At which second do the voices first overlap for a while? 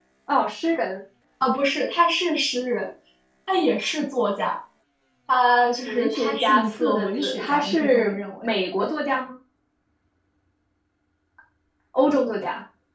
5.9 s

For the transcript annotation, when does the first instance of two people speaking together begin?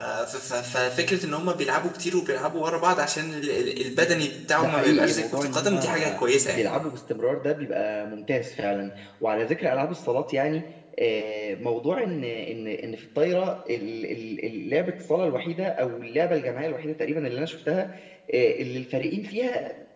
4.6 s

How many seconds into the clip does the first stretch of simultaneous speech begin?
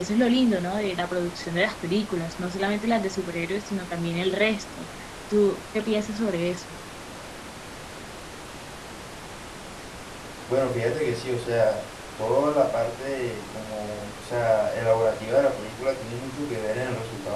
none

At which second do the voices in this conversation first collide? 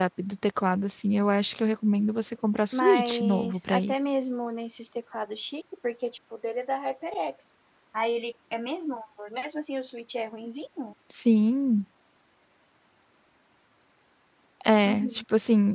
2.7 s

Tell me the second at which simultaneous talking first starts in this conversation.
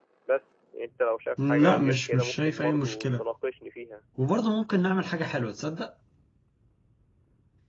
1.4 s

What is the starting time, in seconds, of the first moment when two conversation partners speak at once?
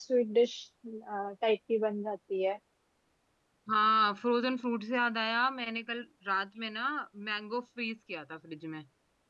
none

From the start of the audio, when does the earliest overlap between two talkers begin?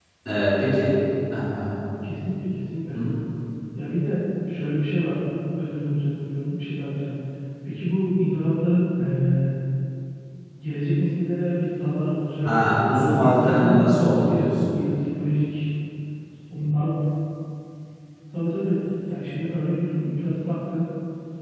12.4 s

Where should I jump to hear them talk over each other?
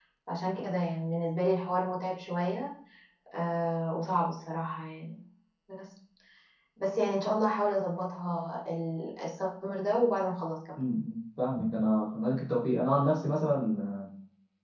none

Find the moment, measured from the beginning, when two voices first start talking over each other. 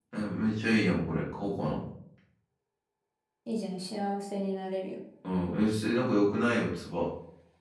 none

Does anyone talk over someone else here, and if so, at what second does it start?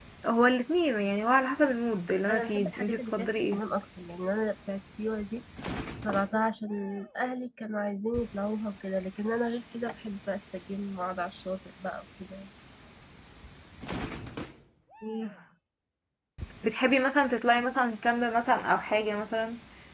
2.3 s

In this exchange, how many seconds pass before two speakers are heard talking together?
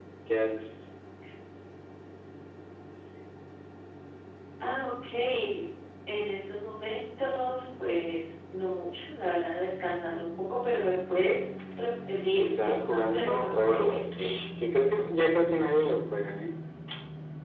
12.4 s

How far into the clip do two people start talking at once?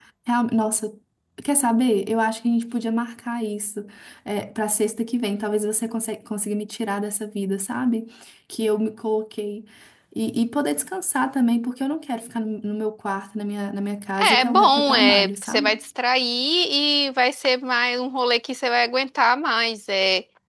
14.2 s

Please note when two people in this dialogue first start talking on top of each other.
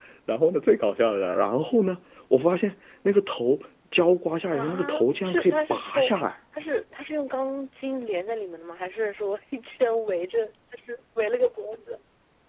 4.5 s

